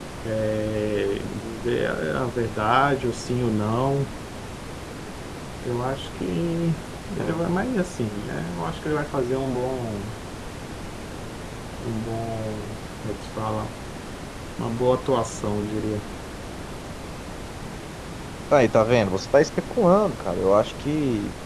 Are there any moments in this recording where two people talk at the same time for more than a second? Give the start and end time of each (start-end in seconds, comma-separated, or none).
none